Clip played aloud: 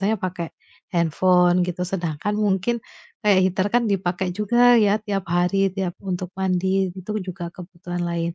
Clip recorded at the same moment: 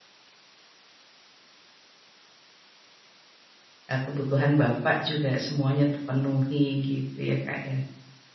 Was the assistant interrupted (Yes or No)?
Yes